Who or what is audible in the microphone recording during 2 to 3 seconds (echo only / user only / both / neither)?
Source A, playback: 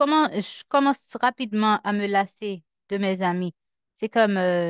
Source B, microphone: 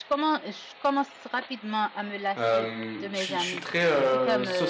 both